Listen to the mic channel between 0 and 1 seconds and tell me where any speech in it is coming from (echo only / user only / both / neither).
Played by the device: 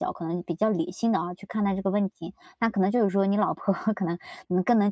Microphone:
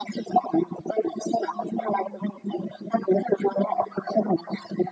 echo only